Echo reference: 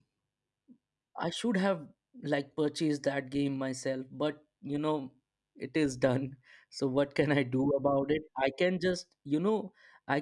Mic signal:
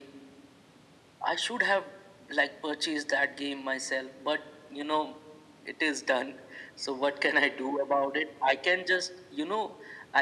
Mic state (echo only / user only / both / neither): echo only